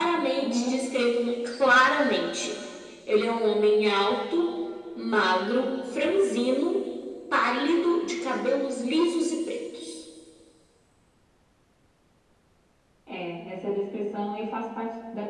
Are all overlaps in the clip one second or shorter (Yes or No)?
Yes